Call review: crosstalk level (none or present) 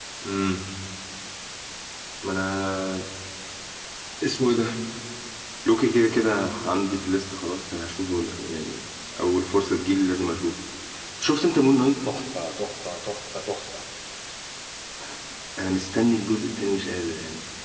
none